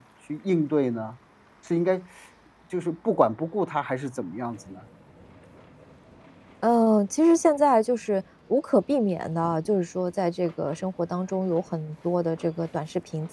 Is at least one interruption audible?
No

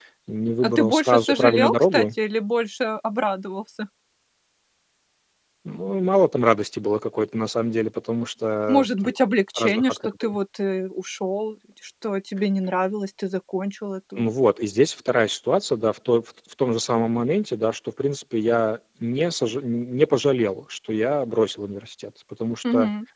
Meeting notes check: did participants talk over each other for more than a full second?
Yes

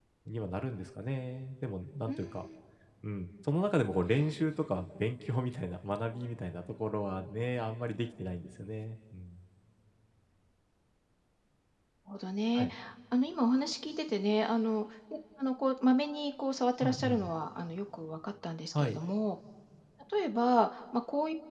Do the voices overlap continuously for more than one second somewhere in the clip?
No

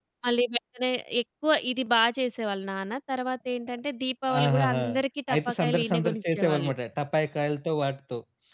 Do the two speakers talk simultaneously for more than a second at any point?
Yes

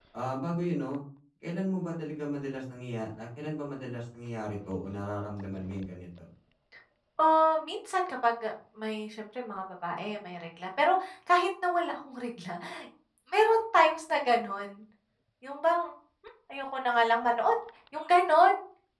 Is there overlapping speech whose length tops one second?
No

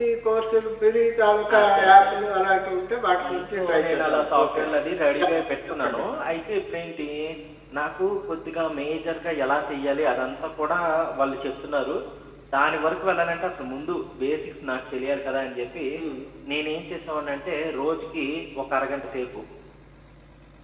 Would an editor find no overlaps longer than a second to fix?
No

